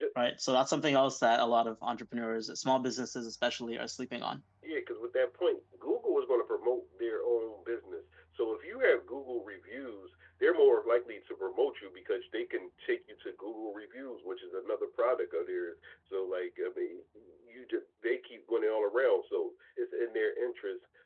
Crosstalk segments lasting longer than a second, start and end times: none

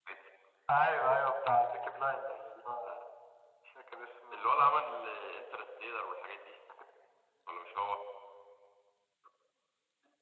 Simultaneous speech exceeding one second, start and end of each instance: none

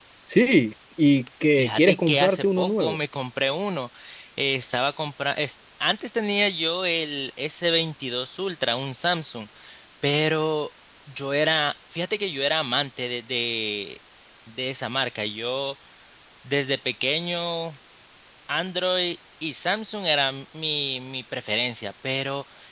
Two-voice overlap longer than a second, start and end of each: 1.6-3.0

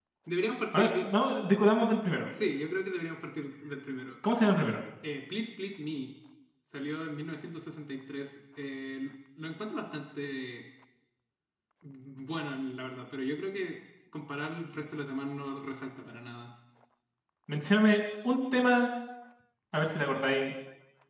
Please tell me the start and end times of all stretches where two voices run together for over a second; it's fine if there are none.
none

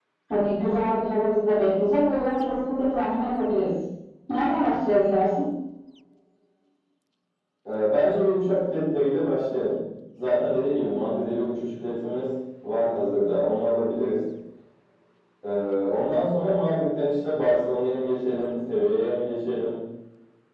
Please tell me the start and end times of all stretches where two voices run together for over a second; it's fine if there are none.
none

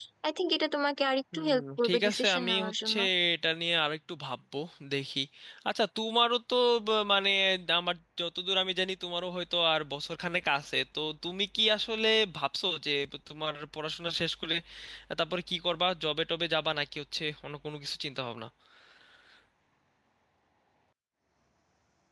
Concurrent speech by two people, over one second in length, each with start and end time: 1.3-3.0

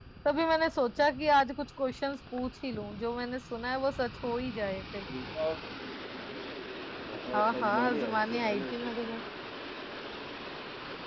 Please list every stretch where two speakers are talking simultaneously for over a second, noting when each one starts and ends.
7.3-8.9

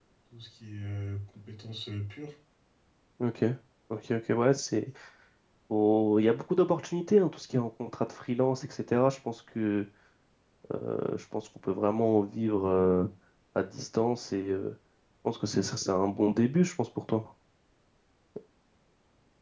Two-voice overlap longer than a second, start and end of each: none

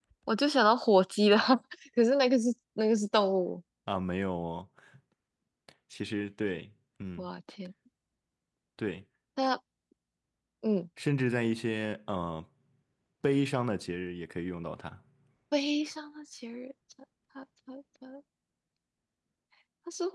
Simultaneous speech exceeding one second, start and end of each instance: none

